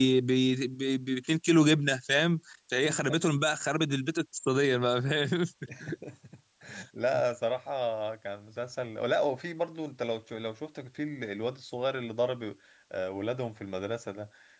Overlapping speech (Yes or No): No